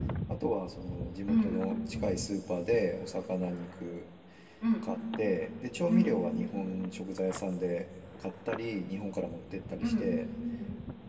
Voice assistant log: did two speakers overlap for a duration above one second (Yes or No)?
No